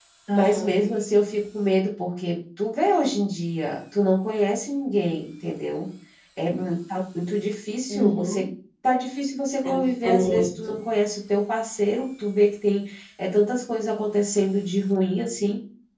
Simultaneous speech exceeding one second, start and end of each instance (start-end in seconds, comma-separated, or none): 9.6-10.8